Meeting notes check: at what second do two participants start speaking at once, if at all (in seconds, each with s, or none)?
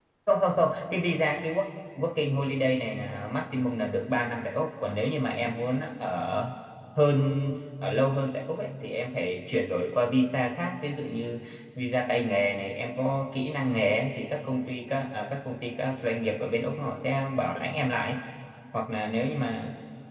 none